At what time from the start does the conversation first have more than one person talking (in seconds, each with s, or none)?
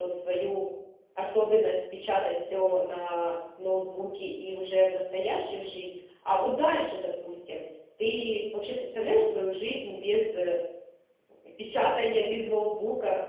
none